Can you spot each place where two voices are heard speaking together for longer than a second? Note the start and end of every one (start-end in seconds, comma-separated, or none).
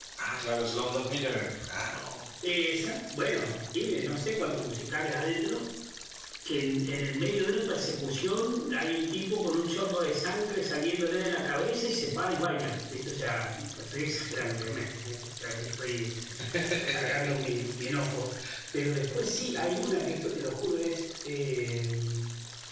none